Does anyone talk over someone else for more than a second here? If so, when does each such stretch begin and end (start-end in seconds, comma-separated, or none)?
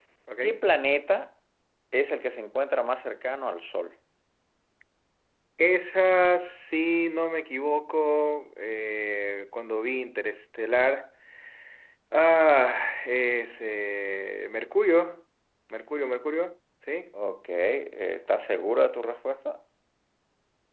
none